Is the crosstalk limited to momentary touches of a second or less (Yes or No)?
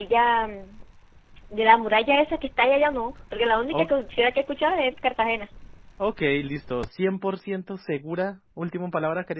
Yes